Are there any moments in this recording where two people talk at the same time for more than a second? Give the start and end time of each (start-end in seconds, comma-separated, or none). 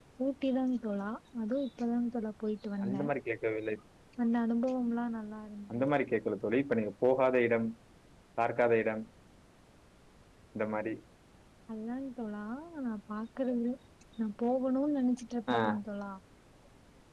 none